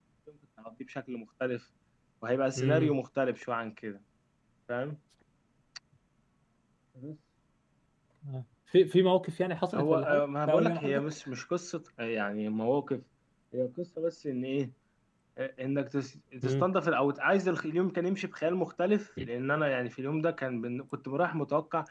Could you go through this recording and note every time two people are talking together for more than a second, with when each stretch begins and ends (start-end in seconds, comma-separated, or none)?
9.7-11.0